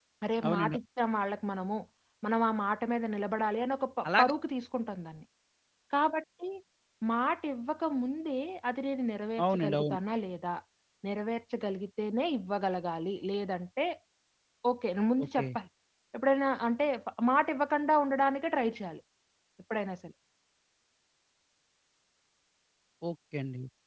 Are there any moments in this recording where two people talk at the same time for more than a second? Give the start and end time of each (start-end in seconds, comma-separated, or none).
none